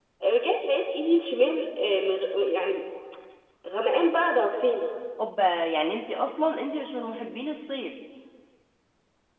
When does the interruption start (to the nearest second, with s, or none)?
none